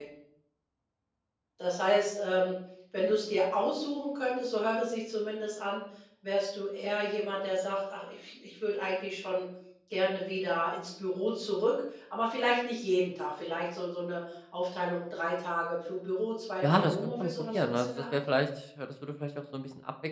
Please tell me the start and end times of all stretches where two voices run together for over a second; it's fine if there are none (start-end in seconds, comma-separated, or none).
16.6-18.2